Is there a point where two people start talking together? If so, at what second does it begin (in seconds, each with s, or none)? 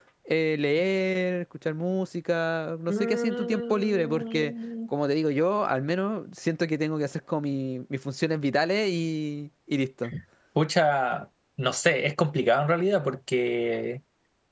2.9 s